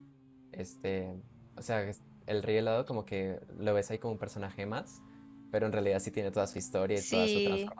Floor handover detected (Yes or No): Yes